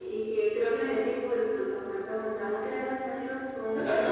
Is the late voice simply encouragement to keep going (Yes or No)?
No